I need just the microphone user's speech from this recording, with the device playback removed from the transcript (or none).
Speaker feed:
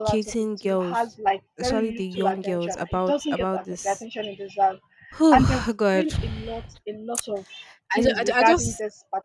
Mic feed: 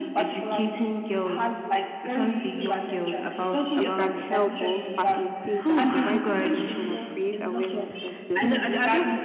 we can help or facilitate and provide information and create awareness of this